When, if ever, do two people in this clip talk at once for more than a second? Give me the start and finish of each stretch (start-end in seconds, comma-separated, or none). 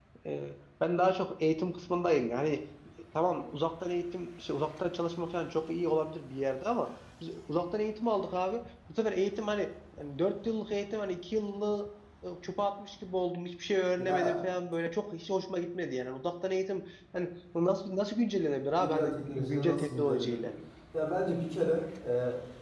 18.8-20.5